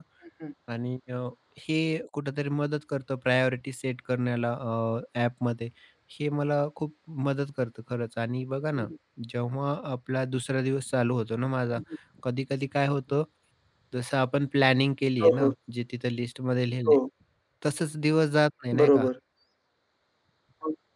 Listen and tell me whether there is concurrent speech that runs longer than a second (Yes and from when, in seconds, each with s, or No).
No